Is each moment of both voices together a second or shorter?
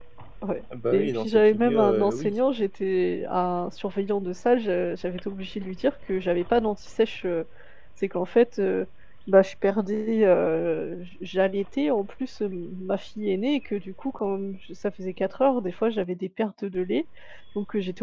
No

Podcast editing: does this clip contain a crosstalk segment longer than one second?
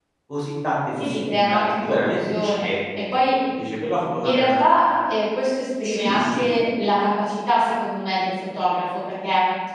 Yes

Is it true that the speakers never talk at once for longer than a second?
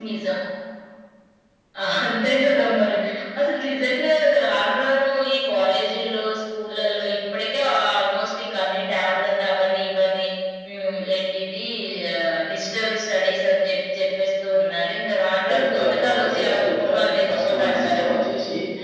No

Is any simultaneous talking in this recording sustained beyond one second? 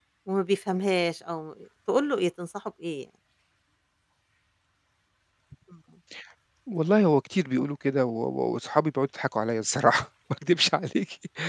No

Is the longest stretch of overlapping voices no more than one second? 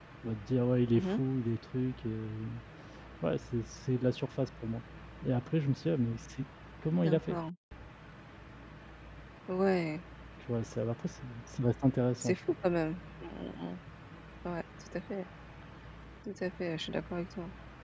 Yes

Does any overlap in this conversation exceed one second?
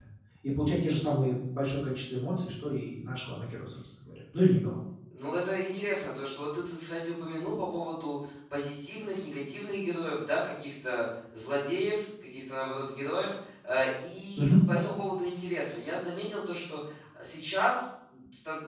No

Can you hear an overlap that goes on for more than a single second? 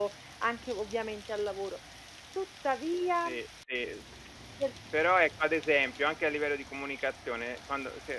No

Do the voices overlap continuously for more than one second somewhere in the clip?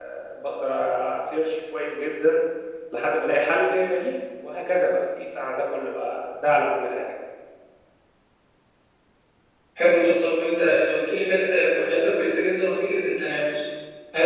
No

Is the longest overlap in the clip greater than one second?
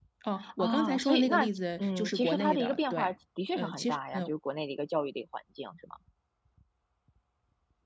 Yes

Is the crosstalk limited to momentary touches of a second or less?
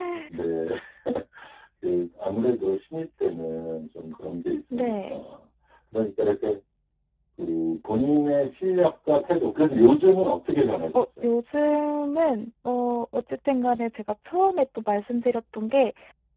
Yes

